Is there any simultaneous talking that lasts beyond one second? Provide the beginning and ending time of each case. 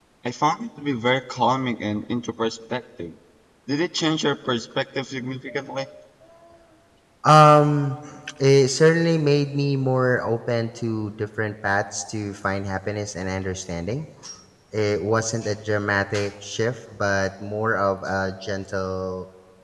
none

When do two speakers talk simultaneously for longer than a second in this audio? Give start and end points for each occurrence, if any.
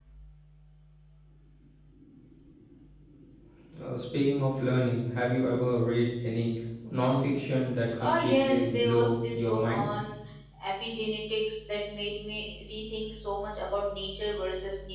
8.0-9.8

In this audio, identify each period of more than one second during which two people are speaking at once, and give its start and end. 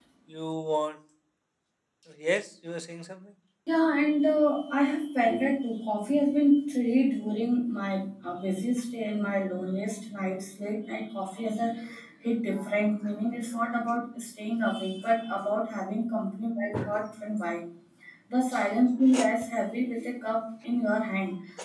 none

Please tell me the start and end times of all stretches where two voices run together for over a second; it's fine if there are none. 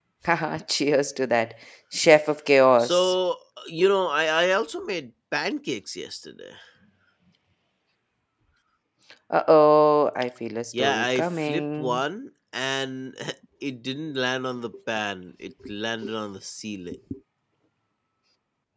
10.8-12.0

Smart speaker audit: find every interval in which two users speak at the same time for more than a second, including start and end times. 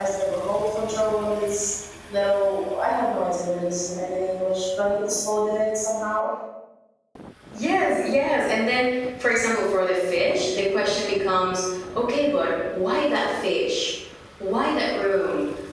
none

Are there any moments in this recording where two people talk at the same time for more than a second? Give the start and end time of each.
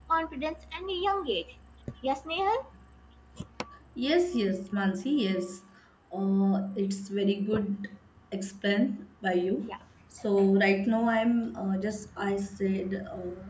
none

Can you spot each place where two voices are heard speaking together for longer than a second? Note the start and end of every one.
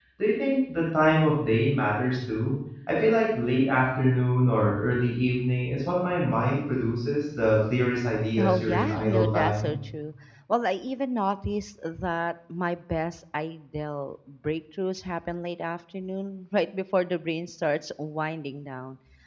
8.4-9.8

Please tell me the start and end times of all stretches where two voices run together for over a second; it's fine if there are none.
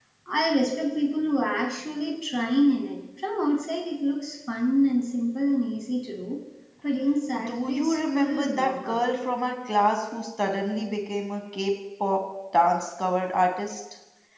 7.4-9.0

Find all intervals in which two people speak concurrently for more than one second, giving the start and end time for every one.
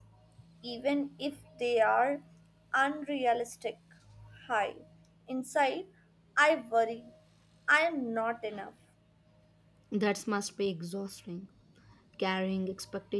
none

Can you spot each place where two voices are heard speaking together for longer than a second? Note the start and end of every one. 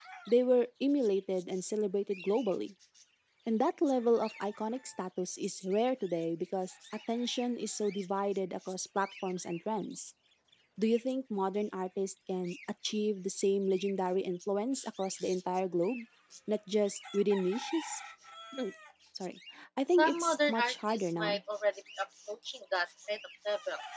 19.9-21.4

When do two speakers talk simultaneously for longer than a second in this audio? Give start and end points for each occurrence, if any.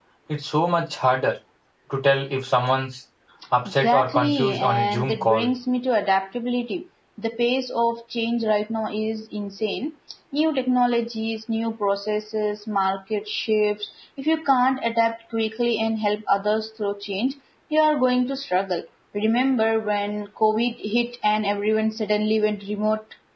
3.6-5.5

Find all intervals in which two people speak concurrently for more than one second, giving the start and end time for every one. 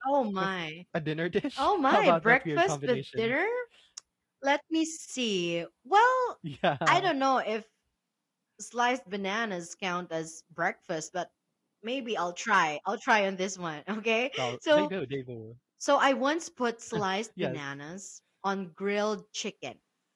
1.6-3.3

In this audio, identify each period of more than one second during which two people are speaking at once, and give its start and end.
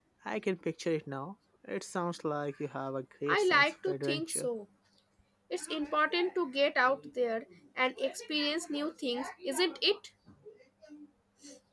3.3-4.5

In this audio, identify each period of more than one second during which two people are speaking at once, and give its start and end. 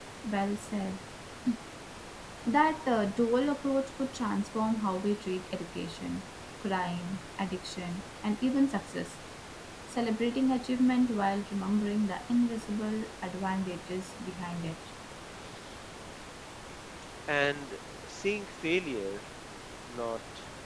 none

